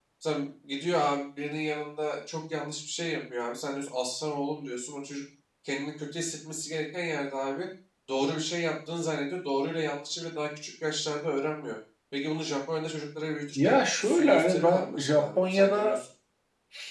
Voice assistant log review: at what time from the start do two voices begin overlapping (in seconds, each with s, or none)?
13.6 s